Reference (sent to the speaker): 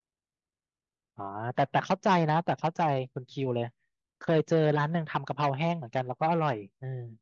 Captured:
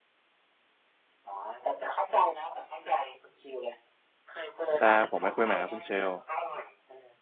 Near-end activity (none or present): present